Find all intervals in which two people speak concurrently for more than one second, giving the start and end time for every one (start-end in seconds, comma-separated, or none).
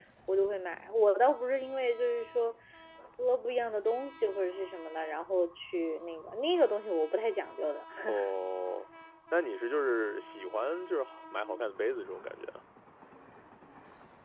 none